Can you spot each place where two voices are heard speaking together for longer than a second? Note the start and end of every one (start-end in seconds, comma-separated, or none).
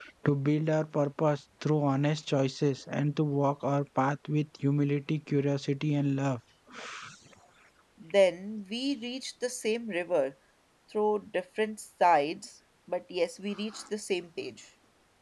none